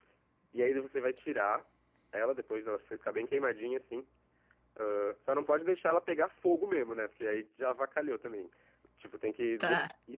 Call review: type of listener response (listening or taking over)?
listening